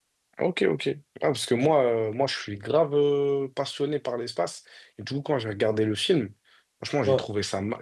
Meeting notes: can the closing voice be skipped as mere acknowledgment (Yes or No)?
Yes